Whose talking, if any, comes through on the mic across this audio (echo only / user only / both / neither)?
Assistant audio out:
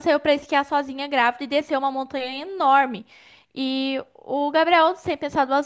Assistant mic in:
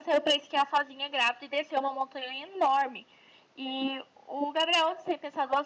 echo only